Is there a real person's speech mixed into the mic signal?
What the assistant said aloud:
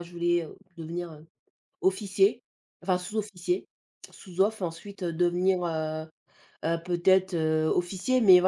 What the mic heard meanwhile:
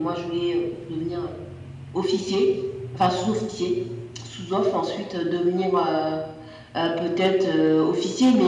No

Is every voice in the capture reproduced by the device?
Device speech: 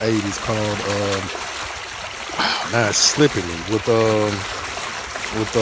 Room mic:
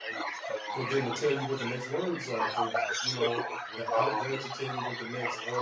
No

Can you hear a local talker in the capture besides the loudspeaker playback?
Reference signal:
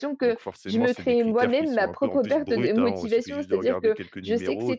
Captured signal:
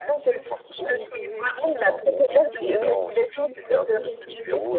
Yes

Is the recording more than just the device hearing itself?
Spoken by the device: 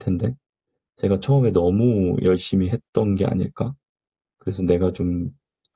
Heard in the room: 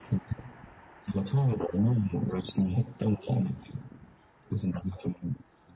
No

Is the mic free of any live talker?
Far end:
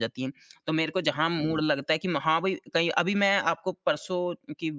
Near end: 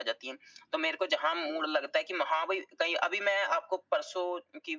Yes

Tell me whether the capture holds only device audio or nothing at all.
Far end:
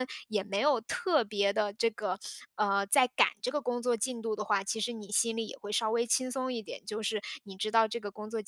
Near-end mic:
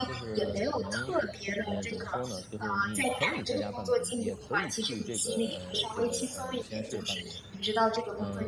No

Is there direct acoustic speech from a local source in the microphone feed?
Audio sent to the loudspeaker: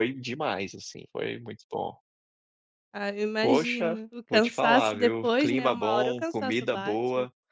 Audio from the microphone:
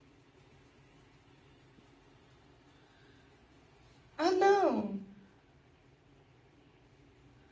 Yes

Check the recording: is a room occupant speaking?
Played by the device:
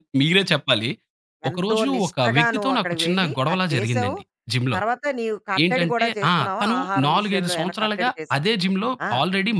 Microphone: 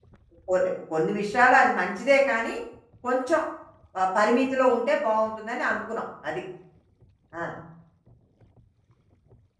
Yes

